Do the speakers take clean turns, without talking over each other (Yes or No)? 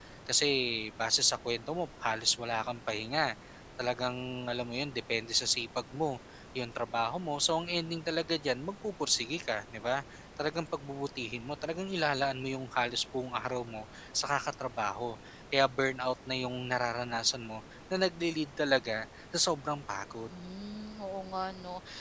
Yes